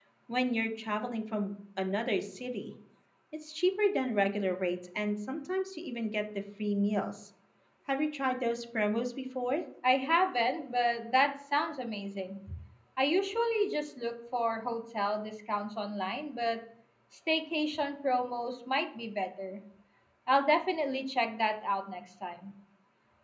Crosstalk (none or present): none